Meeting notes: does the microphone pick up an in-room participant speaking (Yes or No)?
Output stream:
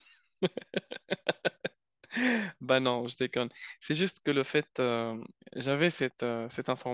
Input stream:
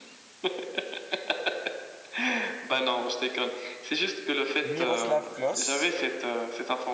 Yes